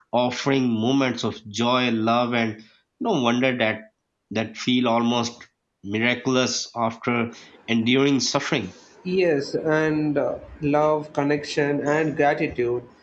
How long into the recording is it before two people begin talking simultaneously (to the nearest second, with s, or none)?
none